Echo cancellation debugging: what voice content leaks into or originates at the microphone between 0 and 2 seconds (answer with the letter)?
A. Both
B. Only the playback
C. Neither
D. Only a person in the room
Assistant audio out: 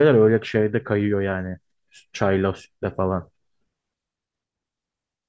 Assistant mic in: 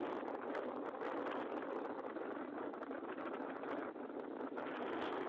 C